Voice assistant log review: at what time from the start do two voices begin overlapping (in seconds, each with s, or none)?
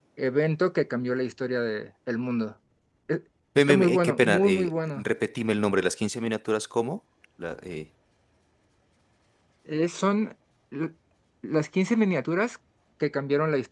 3.6 s